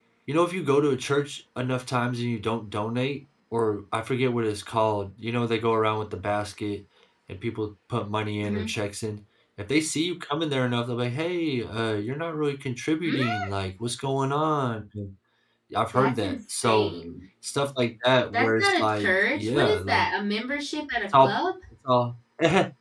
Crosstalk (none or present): present